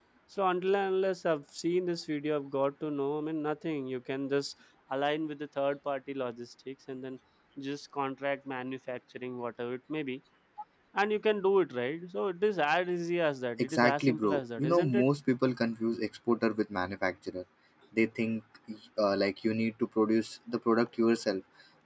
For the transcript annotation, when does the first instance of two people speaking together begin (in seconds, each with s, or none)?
13.6 s